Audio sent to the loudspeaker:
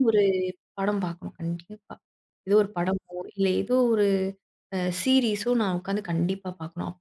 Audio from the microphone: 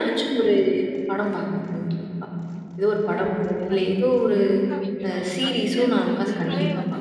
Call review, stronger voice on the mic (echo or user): echo